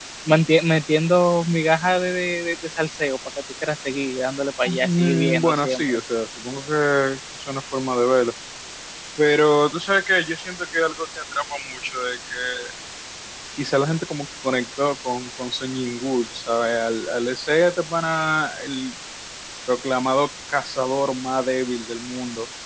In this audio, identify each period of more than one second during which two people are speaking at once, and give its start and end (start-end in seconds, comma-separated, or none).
4.7-6.0